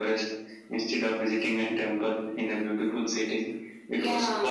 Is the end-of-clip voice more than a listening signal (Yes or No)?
No